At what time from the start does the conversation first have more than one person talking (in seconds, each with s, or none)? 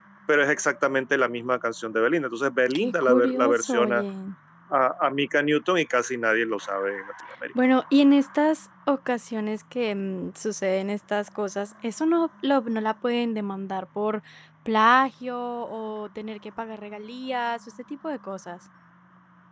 2.7 s